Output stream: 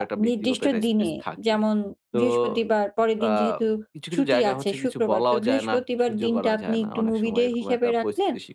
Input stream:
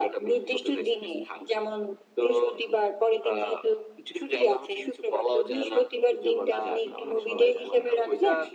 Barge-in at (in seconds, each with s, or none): 6.6 s